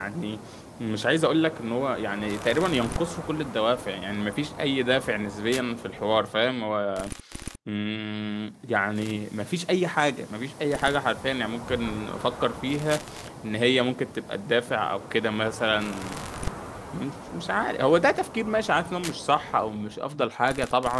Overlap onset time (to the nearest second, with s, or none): none